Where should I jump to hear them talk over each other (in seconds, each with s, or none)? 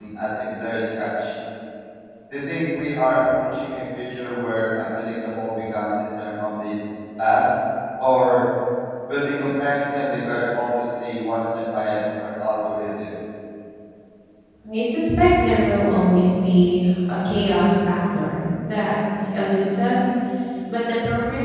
none